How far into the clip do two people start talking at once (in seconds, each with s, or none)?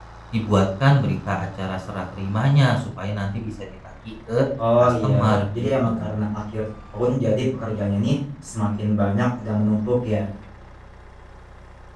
4.8 s